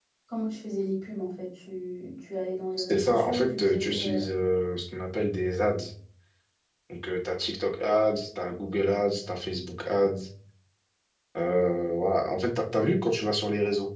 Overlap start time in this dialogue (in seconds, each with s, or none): 2.8 s